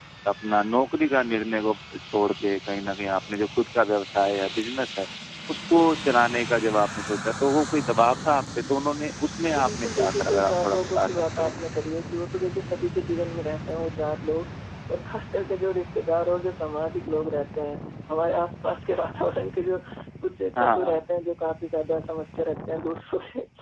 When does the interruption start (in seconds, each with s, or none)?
9.5 s